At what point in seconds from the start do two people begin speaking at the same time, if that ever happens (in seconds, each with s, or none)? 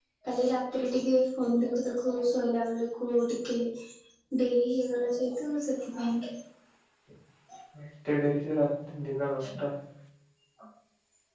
none